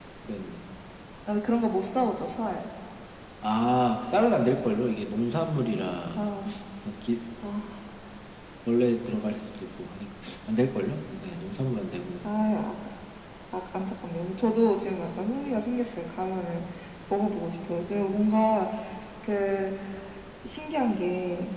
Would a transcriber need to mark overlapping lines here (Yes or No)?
No